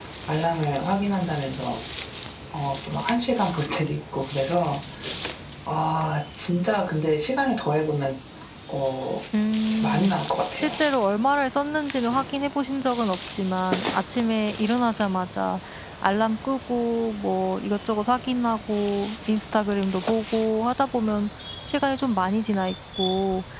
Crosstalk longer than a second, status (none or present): none